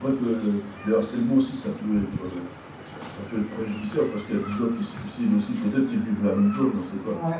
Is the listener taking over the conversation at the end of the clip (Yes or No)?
Yes